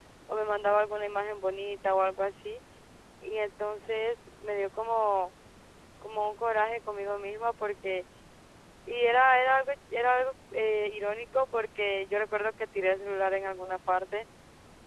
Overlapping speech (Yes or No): No